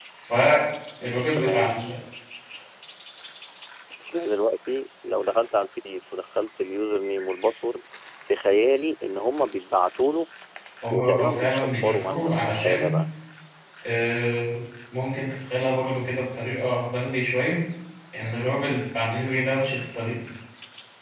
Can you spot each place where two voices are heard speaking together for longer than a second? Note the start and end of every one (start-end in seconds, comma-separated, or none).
10.9-12.9